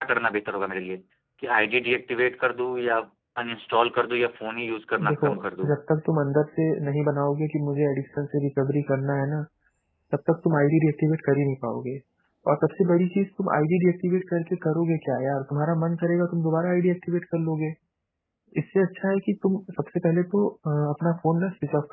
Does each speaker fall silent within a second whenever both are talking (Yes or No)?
Yes